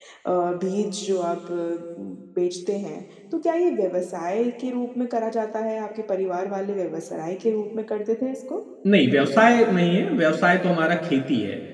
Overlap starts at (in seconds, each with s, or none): none